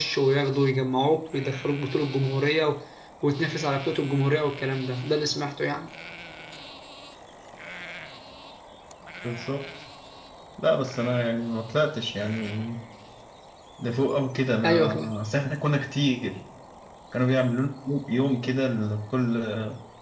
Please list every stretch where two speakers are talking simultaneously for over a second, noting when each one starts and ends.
none

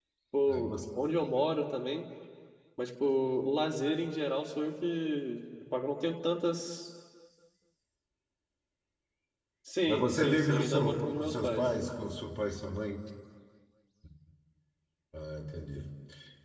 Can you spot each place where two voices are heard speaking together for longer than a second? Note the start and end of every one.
9.9-11.6

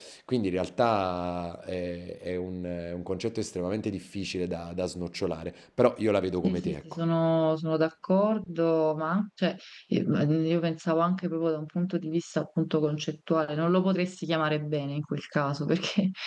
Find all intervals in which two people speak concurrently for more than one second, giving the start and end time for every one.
none

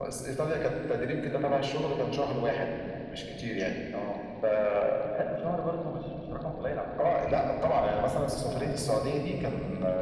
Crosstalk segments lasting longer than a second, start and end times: none

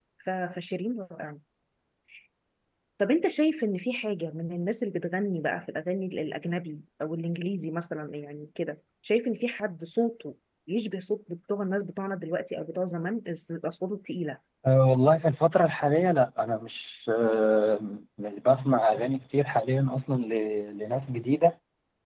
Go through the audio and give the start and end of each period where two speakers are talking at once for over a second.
none

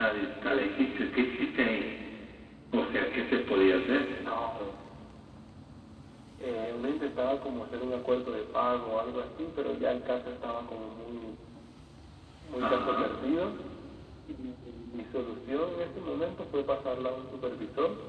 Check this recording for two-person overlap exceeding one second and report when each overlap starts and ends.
none

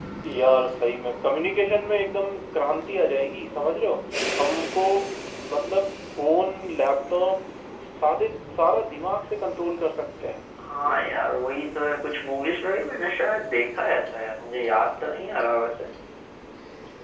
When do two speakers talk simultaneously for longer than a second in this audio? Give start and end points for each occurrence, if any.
none

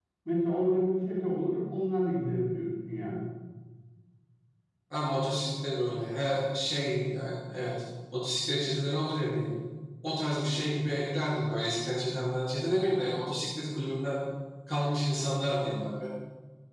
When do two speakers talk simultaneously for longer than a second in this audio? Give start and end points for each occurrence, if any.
none

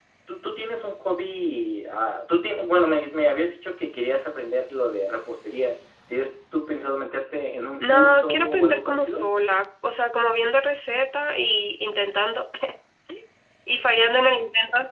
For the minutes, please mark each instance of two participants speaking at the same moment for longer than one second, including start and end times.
7.8-9.3

